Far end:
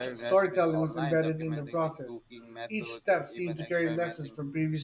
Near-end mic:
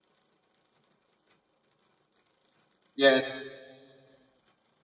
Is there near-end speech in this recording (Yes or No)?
Yes